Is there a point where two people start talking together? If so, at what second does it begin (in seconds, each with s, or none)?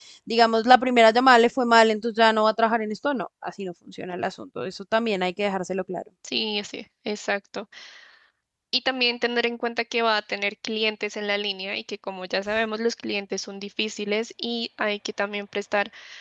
none